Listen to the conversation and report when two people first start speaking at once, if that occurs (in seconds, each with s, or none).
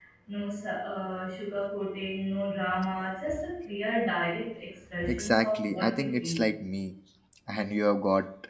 5.1 s